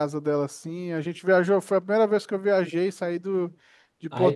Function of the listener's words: taking over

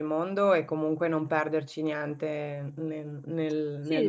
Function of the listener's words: taking over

